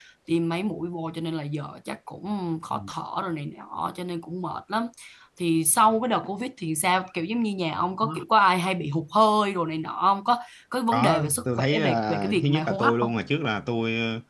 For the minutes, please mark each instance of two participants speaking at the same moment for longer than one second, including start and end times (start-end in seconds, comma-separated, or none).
10.9-13.1